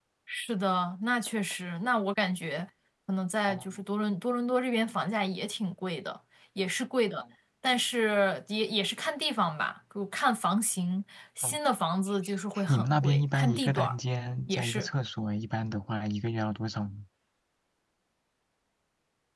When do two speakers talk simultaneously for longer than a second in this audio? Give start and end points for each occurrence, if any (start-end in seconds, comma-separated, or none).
12.7-14.0